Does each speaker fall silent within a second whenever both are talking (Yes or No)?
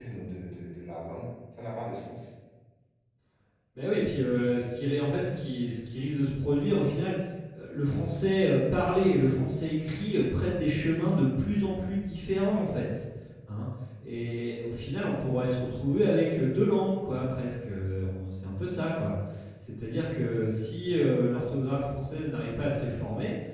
Yes